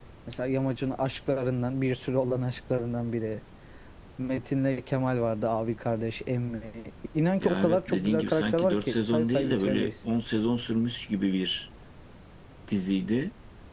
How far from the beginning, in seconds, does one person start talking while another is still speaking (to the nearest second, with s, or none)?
7 s